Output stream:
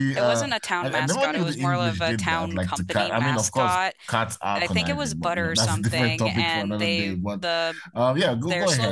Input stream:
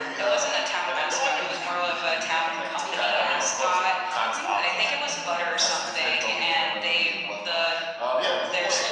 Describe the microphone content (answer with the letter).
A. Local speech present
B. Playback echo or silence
A